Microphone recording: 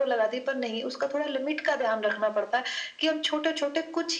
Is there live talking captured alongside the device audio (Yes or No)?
No